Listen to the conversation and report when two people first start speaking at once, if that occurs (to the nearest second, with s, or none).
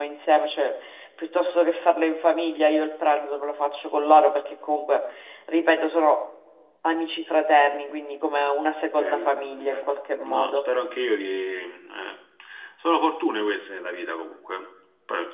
9 s